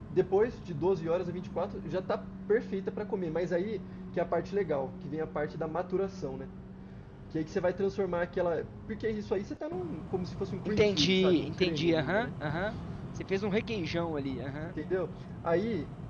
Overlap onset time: 10.7 s

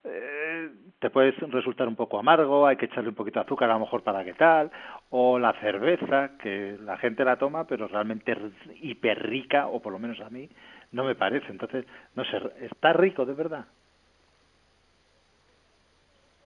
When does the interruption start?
none

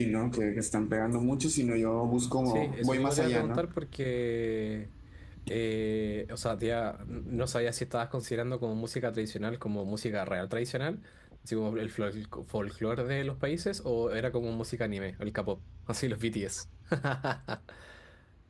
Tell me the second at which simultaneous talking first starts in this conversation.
2.4 s

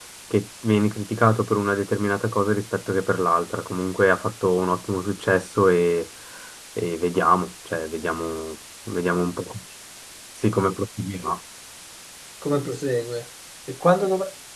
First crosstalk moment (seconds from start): none

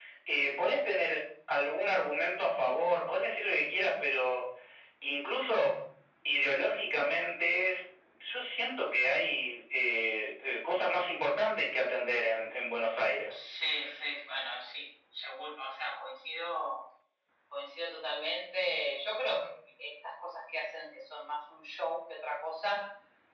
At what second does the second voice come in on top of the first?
none

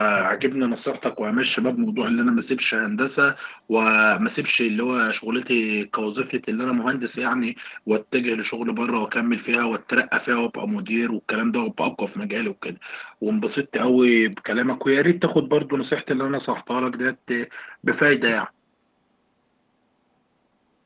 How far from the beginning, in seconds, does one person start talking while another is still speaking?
none

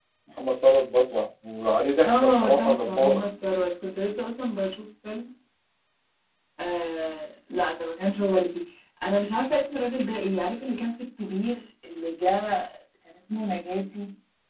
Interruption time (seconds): 2.0 s

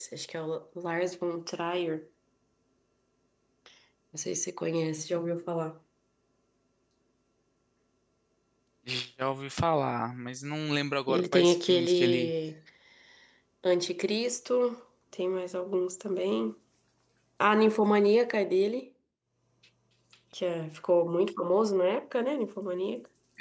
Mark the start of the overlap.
11.1 s

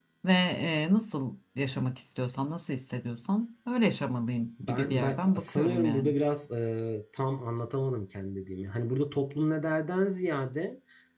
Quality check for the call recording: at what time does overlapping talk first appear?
4.6 s

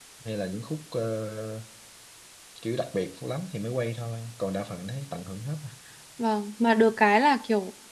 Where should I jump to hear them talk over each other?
none

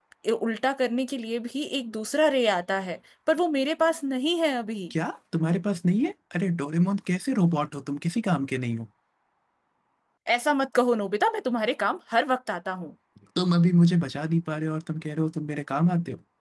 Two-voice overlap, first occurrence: none

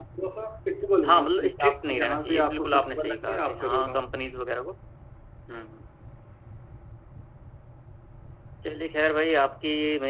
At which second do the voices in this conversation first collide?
1.1 s

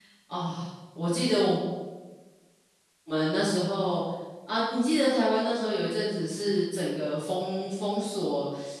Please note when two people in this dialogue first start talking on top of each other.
none

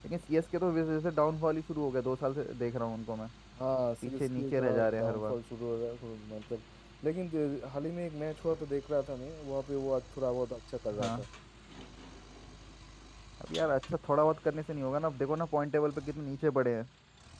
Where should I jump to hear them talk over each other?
4.0 s

